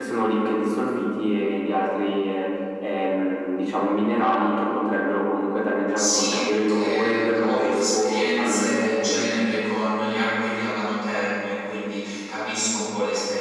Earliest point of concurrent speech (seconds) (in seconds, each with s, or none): 6.0 s